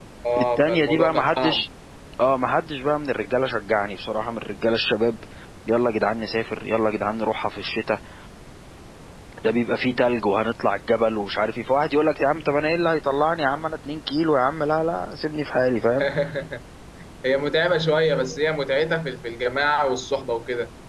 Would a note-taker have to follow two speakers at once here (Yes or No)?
Yes